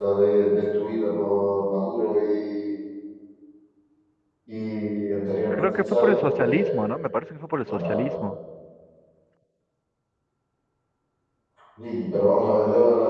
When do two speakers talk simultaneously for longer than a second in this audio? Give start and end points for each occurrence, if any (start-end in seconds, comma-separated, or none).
5.5-6.8